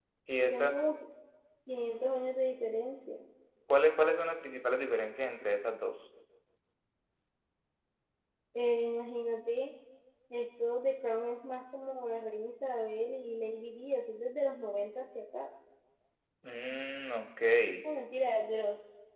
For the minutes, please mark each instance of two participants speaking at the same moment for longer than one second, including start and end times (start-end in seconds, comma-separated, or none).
none